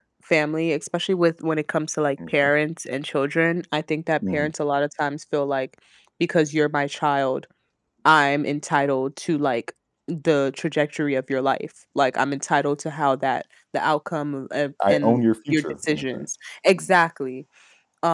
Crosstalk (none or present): present